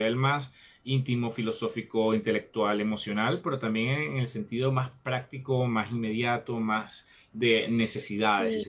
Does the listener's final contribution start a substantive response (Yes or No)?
Yes